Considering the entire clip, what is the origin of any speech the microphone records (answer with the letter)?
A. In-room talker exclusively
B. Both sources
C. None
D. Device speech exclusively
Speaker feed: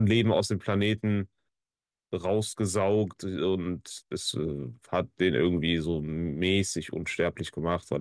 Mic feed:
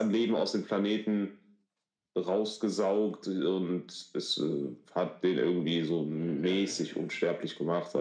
B